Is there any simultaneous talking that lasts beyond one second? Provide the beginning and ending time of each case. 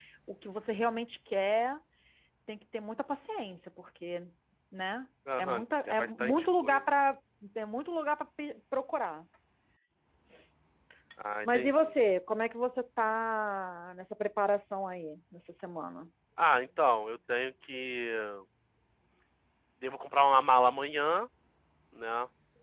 5.4-6.8

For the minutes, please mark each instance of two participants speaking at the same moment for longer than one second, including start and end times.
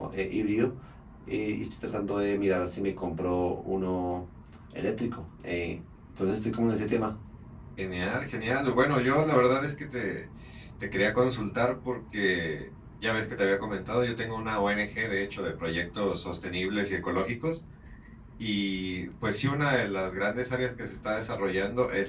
none

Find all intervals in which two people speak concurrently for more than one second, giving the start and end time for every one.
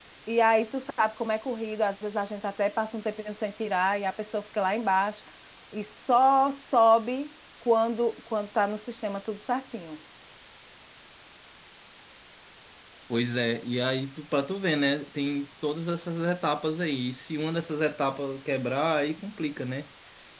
none

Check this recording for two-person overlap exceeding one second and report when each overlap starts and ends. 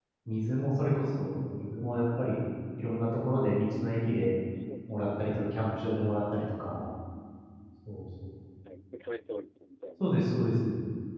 none

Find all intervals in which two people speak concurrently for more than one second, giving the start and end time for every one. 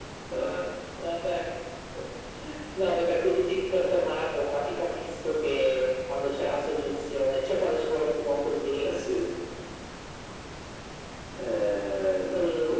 none

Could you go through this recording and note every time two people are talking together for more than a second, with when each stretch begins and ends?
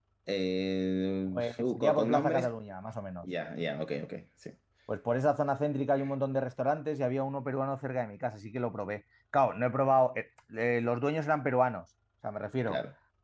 1.3-2.5

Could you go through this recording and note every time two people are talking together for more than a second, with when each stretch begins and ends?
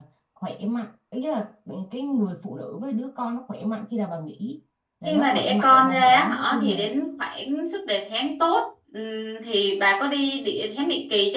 5.0-6.9

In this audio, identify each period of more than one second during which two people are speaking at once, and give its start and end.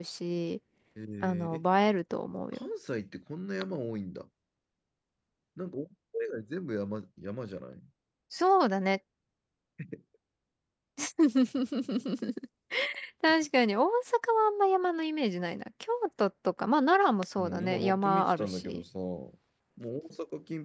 17.4-18.8

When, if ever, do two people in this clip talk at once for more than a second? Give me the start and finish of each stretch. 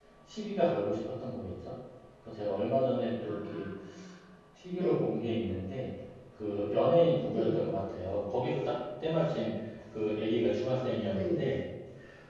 none

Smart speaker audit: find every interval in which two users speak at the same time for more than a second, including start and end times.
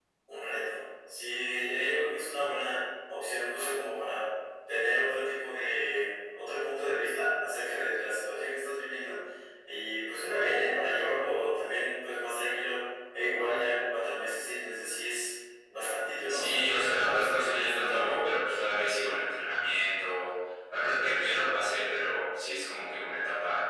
16.3-18.3

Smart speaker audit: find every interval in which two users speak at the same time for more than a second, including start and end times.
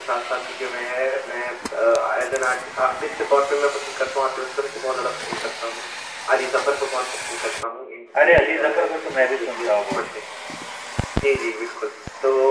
8.2-9.7

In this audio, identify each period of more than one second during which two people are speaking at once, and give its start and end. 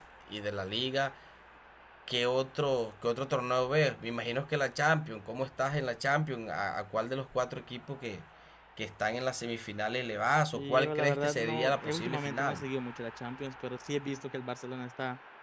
10.5-12.6

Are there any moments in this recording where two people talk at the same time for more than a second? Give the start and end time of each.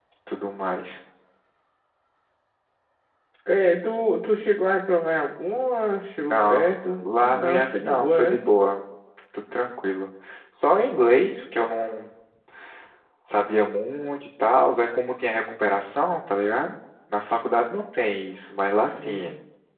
6.3-8.3

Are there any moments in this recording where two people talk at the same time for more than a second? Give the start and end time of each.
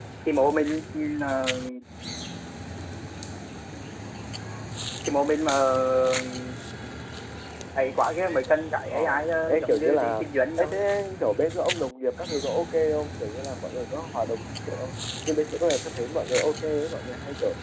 9.5-10.8

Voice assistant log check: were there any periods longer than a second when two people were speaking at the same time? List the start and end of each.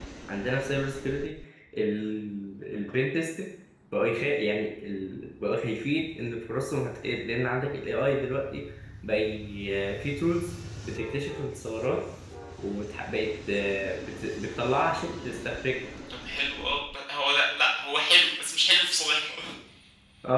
none

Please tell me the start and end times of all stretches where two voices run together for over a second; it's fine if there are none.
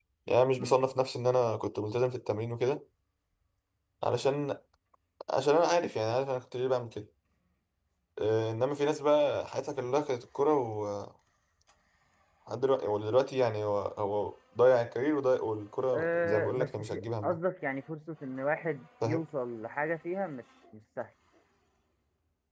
15.9-17.4

